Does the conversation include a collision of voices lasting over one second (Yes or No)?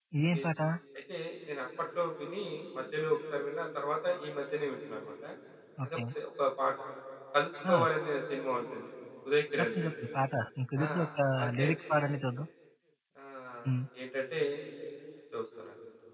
No